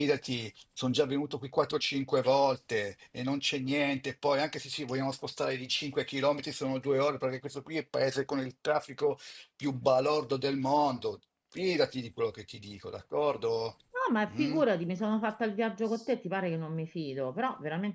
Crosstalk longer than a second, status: none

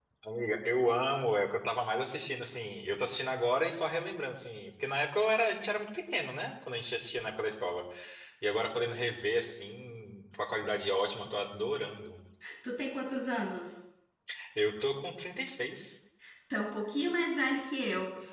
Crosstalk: none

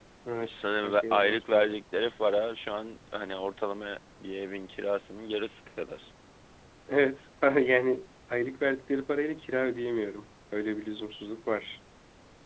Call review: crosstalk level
present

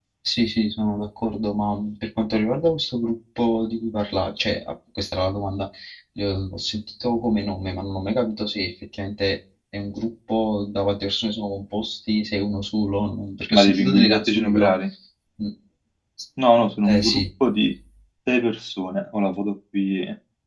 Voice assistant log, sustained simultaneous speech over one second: present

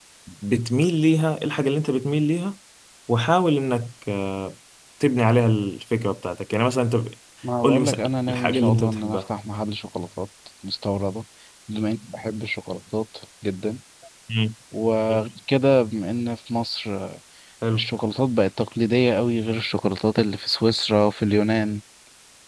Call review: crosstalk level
present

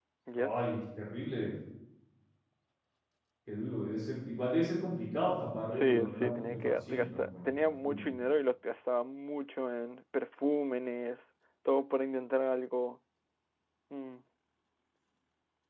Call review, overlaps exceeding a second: present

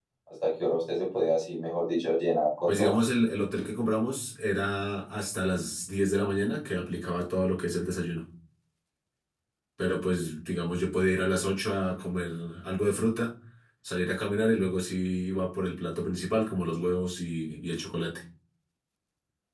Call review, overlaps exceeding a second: none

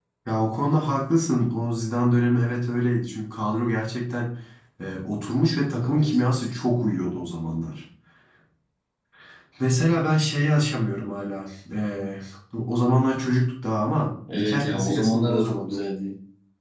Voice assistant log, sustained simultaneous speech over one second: present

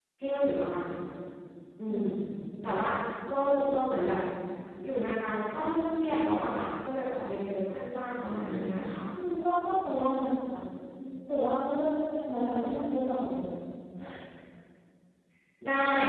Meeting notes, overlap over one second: none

